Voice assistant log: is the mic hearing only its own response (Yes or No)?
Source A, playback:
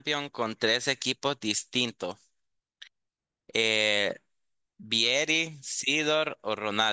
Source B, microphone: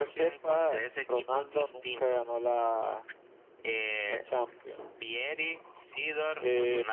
No